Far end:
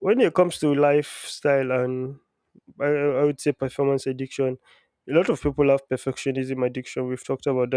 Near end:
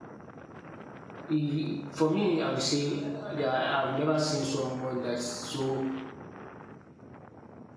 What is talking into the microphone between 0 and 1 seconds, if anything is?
neither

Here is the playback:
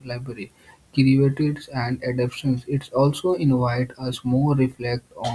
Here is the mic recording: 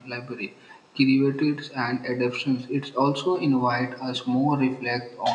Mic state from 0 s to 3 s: echo only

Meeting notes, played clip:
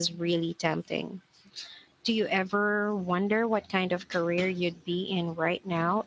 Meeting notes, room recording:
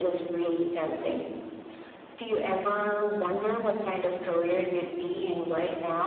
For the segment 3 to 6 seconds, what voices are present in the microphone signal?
echo only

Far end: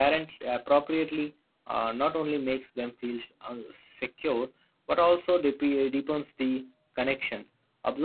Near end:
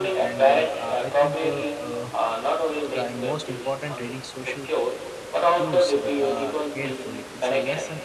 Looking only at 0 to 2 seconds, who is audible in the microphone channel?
both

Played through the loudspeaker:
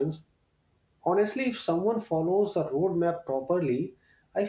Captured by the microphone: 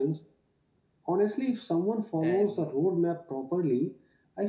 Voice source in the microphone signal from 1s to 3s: both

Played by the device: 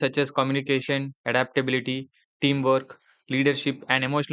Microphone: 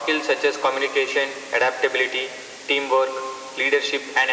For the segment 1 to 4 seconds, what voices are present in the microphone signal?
echo only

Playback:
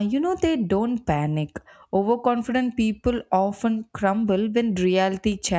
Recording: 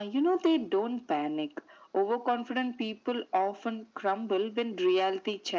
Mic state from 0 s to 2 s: echo only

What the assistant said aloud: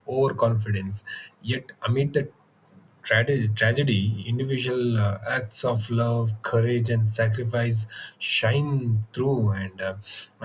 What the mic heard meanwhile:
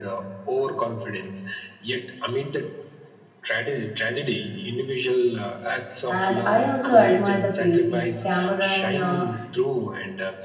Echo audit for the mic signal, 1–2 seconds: echo only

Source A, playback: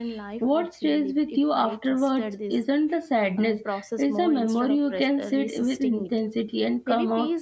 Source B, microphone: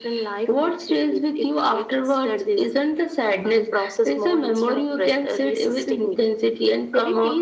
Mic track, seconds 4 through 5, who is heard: echo only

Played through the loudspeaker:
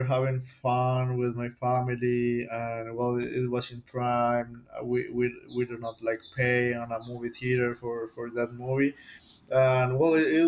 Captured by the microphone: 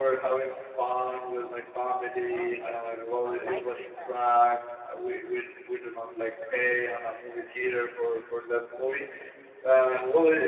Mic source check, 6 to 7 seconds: echo only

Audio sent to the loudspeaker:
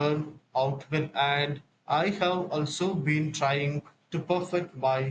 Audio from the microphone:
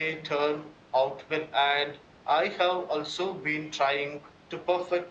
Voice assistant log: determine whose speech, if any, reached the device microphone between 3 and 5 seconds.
echo only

